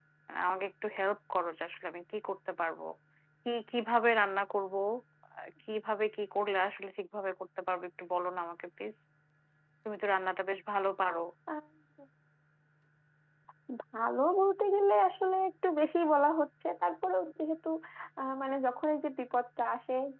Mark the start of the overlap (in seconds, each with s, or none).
none